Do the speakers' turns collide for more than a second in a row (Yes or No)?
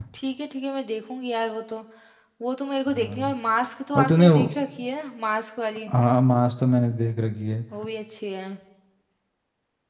No